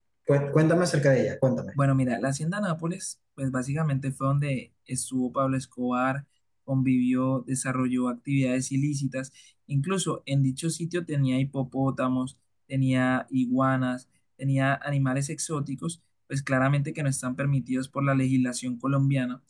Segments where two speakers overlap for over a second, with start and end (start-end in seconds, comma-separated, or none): none